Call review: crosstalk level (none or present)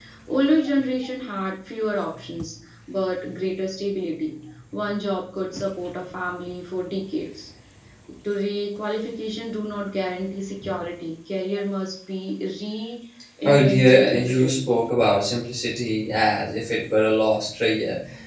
present